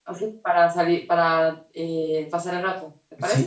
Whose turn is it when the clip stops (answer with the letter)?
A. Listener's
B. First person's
A